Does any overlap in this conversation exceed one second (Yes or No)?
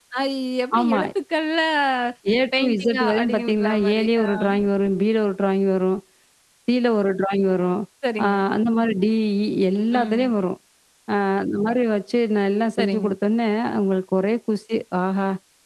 Yes